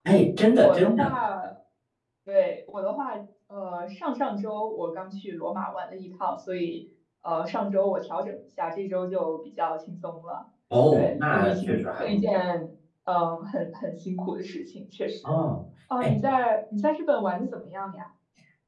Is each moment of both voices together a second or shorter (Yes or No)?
No